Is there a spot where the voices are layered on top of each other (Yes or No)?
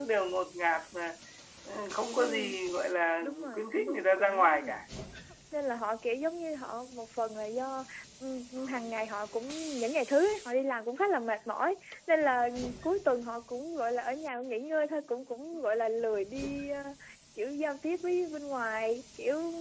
Yes